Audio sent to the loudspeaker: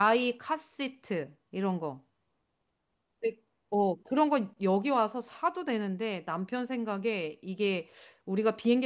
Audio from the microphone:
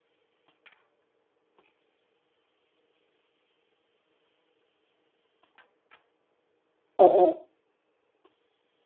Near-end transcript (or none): 어, 어.